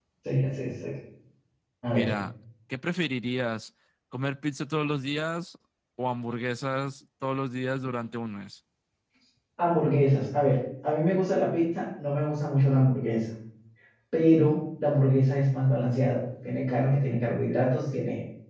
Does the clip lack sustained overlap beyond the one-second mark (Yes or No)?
Yes